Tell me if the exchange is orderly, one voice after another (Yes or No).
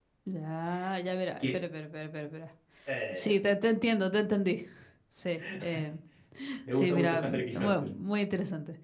No